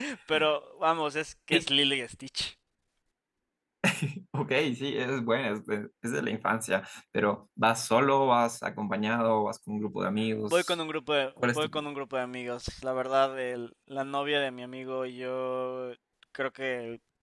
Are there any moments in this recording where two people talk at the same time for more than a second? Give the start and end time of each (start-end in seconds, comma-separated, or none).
none